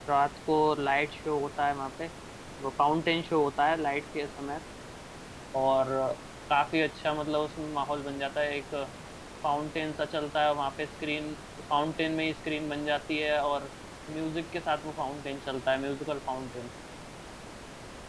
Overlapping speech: No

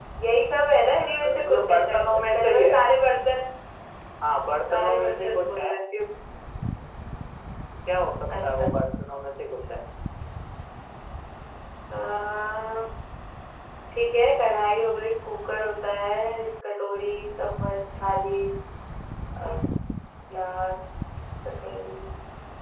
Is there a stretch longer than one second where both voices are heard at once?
Yes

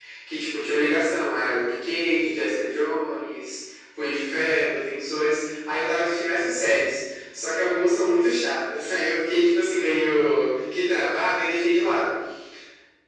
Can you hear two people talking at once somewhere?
No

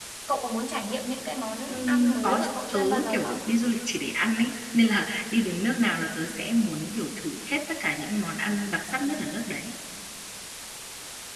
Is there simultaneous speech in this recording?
Yes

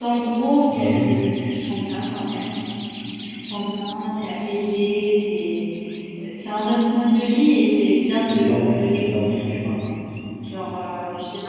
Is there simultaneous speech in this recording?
Yes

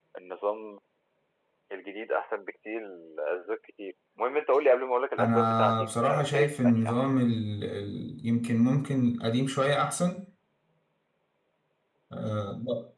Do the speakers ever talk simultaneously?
Yes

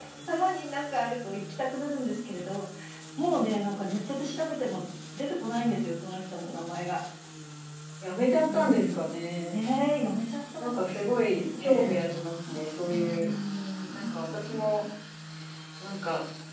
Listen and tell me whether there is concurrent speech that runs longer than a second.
Yes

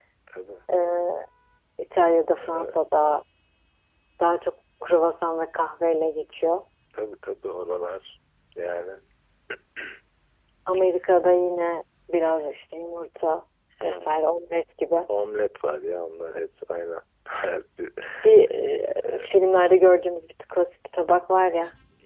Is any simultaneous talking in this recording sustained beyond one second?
No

